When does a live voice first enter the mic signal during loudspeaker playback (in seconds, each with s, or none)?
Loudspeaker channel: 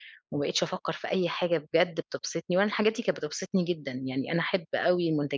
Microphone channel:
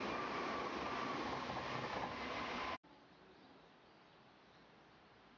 none